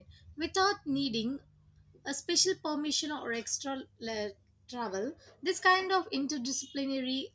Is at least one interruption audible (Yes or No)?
No